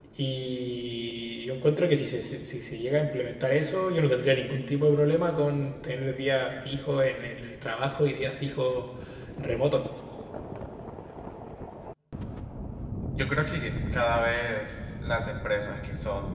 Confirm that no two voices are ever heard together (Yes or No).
Yes